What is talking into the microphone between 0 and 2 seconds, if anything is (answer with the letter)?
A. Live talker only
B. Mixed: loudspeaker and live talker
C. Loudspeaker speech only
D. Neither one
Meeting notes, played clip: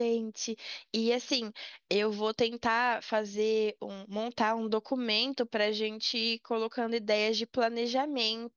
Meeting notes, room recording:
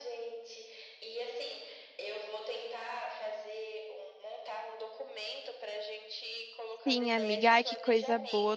C